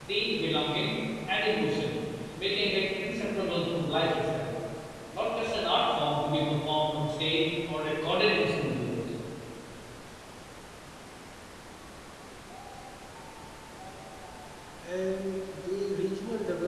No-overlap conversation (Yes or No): Yes